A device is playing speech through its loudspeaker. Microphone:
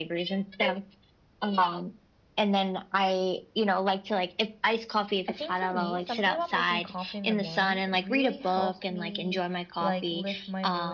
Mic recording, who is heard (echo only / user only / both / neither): both